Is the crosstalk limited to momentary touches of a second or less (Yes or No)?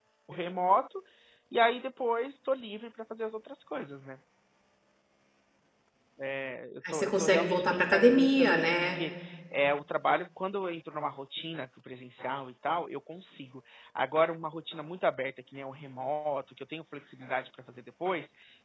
No